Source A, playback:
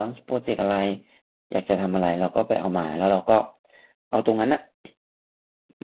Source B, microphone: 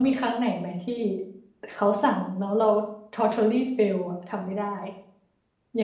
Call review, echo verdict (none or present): none